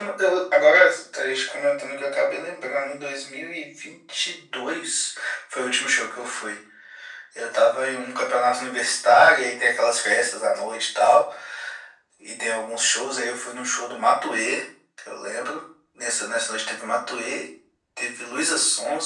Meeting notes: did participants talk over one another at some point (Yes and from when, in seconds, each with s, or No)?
No